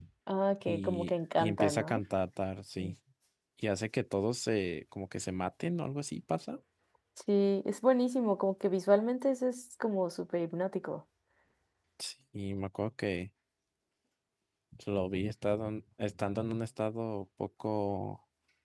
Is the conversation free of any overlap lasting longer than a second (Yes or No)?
No